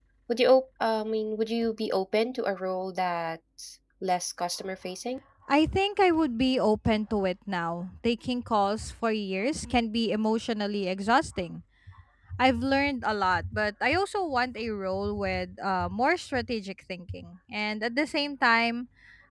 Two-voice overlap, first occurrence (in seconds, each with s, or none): none